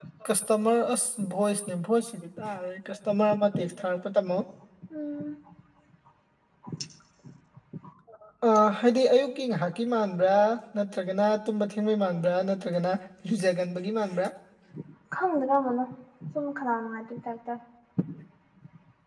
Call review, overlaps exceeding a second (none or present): none